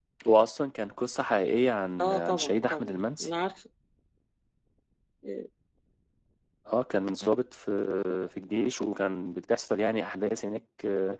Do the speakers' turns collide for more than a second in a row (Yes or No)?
Yes